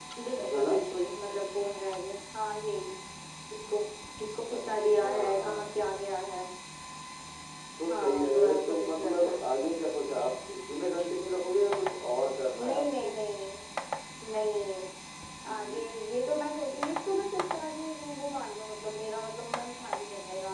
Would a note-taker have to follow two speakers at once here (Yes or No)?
Yes